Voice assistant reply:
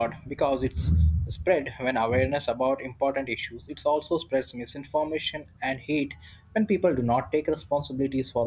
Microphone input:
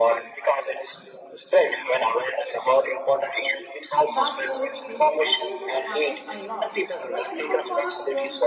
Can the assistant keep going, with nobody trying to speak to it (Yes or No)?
No